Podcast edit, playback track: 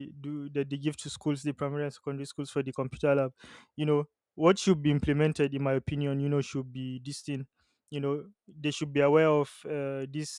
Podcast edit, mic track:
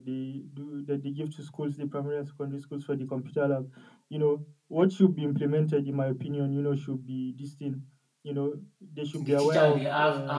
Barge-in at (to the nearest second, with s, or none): 9 s